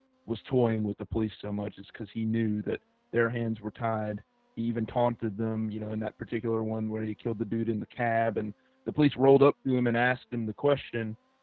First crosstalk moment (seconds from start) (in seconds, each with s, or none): none